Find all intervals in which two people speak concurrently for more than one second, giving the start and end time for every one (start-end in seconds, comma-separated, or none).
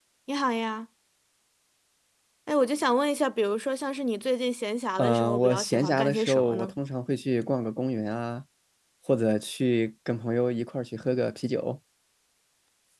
5.0-6.7